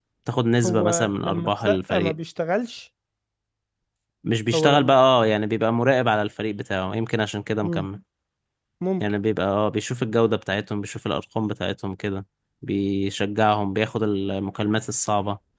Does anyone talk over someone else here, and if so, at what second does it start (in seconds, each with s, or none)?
0.6 s